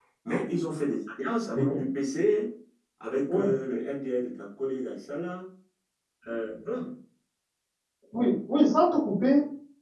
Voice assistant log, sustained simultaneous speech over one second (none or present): none